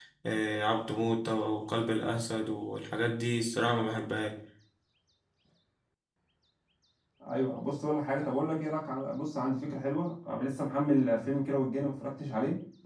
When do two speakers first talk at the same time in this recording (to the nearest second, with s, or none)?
none